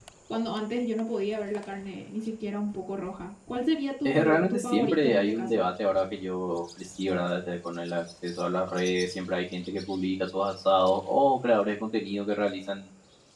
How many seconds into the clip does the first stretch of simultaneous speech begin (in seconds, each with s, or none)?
4.0 s